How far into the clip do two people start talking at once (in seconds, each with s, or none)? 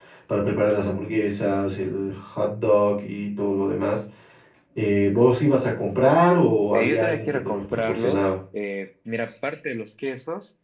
6.7 s